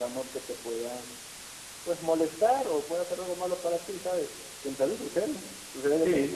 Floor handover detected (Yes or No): No